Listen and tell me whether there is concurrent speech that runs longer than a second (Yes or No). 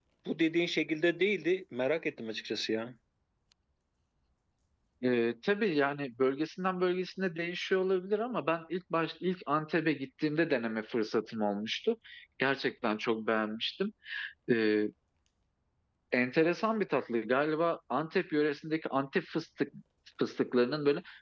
No